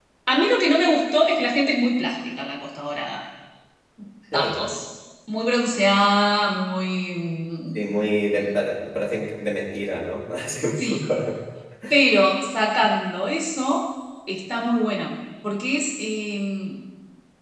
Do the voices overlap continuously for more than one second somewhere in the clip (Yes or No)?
No